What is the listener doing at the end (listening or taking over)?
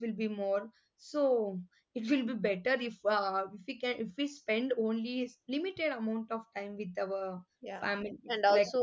taking over